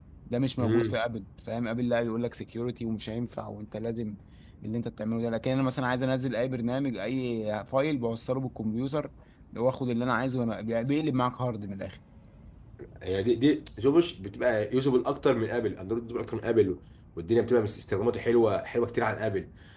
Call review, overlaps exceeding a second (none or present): none